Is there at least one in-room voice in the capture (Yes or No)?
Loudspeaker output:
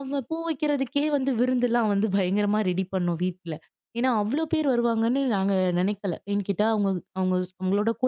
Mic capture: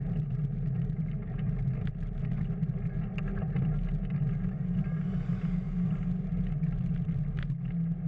No